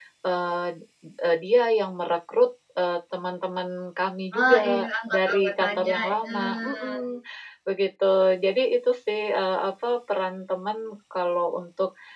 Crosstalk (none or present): present